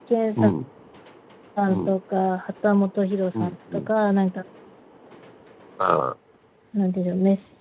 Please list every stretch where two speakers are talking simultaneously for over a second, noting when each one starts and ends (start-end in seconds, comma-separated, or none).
none